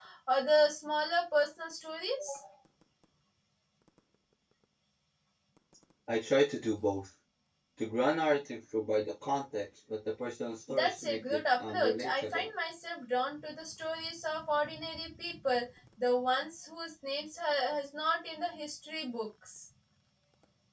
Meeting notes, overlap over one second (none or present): present